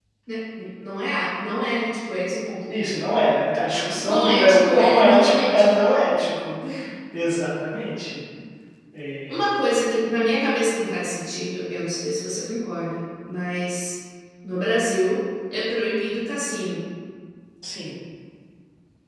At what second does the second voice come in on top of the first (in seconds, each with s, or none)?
3.9 s